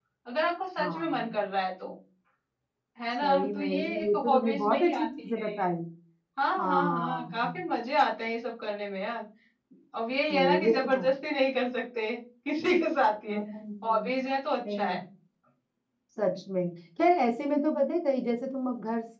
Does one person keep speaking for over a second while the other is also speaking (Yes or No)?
Yes